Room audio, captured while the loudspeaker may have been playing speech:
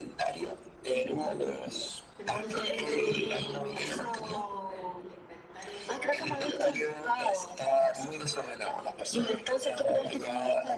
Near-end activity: present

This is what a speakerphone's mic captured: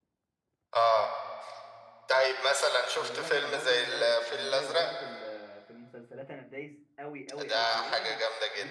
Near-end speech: present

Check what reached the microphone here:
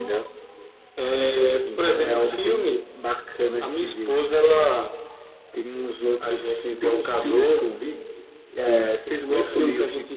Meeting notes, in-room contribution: none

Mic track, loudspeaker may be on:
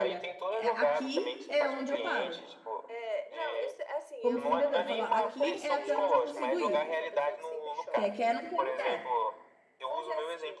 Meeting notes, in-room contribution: present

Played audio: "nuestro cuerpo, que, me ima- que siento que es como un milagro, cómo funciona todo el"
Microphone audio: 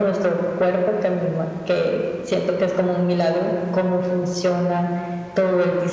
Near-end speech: none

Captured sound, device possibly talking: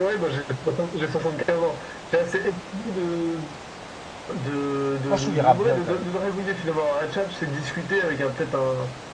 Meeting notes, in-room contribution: present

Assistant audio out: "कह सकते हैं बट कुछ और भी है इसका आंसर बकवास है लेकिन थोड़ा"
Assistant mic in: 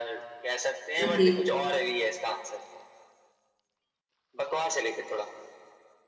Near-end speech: present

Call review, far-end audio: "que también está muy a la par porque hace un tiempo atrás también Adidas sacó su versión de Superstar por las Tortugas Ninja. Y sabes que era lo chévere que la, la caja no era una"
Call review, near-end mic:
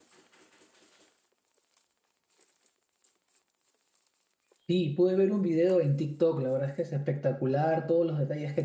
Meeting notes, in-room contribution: present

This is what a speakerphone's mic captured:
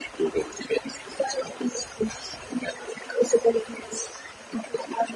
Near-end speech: none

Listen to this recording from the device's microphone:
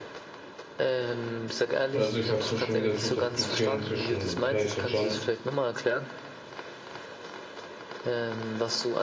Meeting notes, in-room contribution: present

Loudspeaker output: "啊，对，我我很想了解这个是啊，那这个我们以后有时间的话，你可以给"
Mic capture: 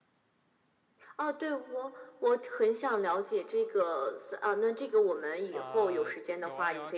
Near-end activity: present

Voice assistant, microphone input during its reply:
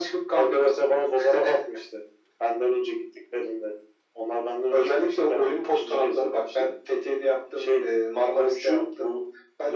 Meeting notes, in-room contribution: none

